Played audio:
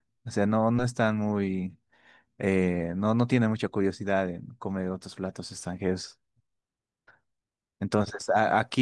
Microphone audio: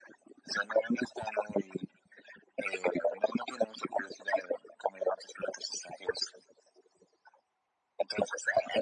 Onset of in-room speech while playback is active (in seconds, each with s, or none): none